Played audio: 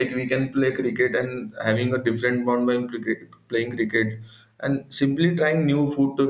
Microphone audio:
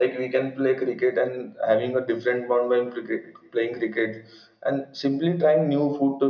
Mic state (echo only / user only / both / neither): echo only